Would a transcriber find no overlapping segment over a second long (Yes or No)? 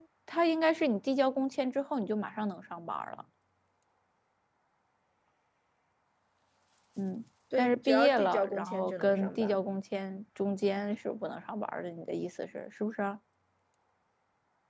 No